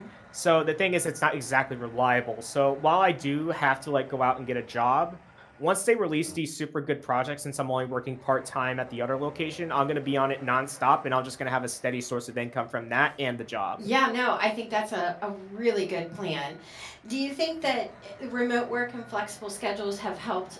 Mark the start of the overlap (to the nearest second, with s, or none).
none